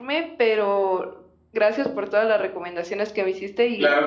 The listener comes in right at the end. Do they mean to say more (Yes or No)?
Yes